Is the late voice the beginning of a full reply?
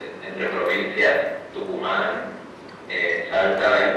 No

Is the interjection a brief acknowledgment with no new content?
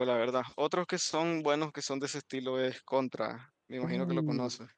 No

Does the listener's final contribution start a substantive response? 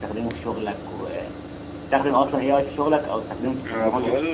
Yes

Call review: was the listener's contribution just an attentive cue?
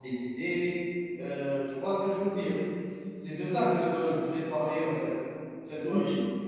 No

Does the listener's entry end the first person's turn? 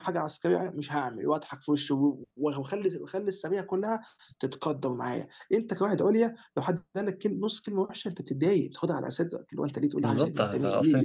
Yes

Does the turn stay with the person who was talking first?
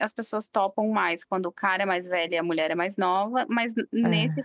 Yes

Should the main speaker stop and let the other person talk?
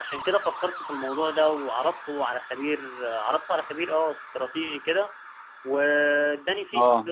No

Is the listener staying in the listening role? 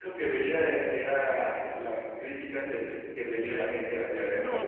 No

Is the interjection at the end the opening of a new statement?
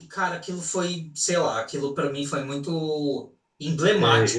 Yes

